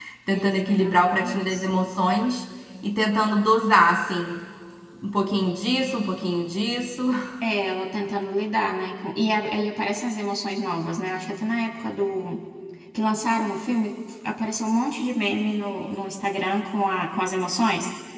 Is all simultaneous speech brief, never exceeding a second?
No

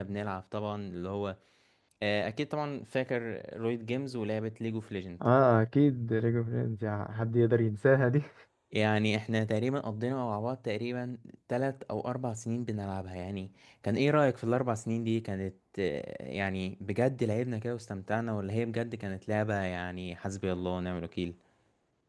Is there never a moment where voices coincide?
Yes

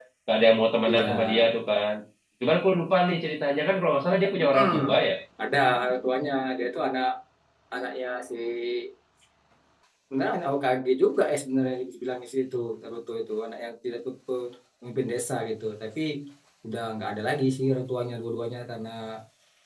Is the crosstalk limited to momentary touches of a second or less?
Yes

